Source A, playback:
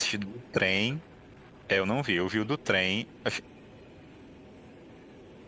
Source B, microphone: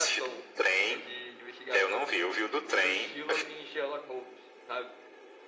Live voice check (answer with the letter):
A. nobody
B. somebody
B